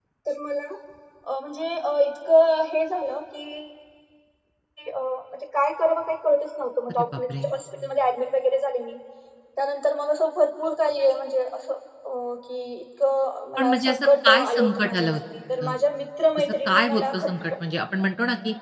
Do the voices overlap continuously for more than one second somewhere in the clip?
Yes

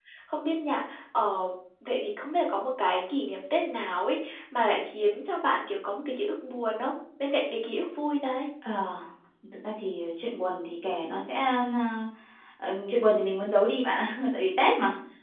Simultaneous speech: No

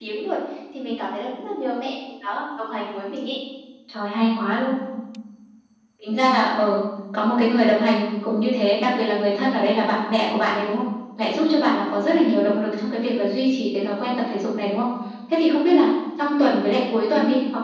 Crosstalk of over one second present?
No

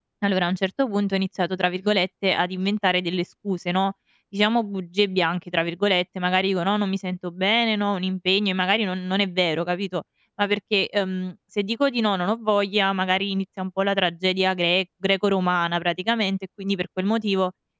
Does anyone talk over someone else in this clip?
No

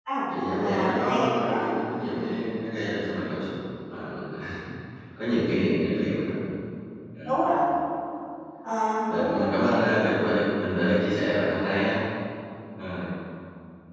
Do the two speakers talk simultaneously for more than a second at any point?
Yes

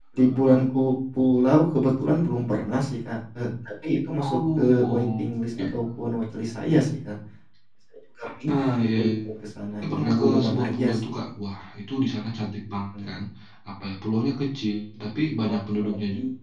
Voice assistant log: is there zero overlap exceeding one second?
No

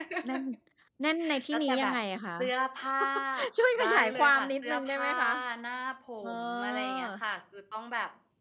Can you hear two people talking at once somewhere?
Yes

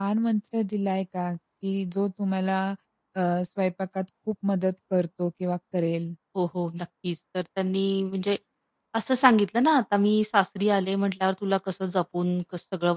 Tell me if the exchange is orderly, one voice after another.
Yes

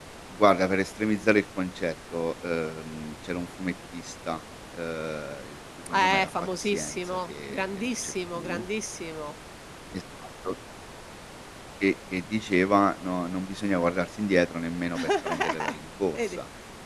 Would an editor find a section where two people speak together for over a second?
Yes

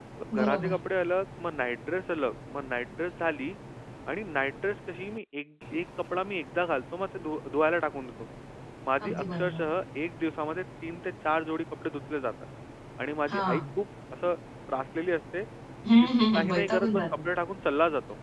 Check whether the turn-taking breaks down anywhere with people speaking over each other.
Yes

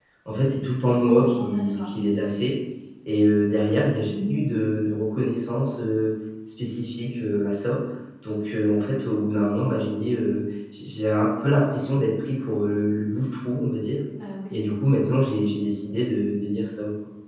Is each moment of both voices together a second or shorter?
No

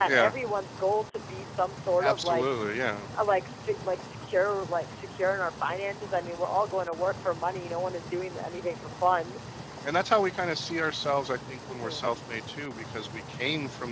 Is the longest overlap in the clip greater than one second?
No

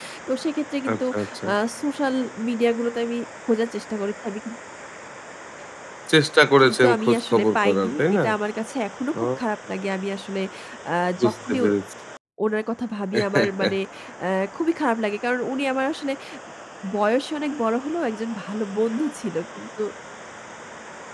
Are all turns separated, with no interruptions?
No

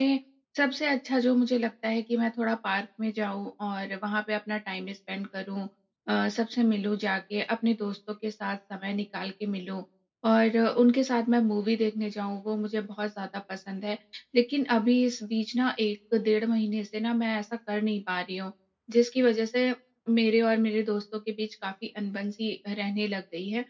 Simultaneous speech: No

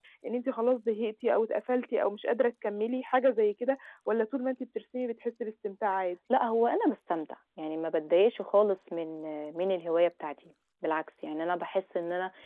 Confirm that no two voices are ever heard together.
Yes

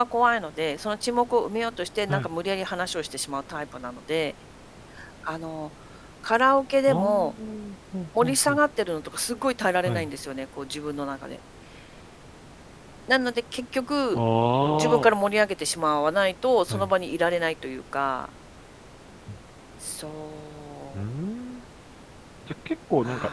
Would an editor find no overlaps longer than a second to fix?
Yes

